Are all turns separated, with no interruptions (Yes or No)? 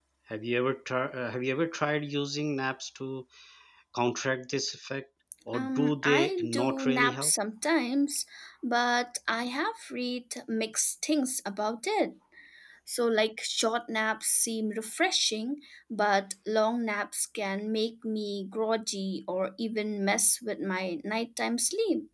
No